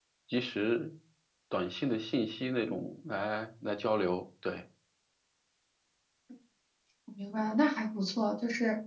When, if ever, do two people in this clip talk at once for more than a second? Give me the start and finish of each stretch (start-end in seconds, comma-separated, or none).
none